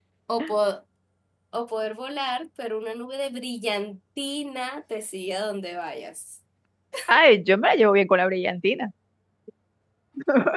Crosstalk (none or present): none